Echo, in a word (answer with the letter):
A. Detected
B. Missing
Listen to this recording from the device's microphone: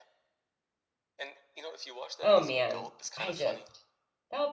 A